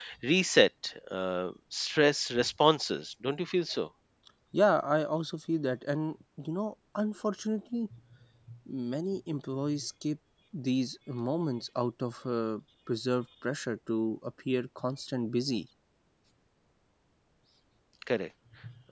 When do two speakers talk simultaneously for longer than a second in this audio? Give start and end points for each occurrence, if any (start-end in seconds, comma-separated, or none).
none